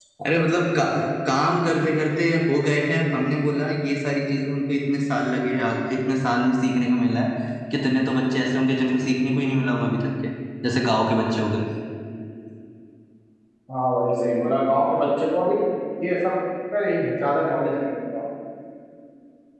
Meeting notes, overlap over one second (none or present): none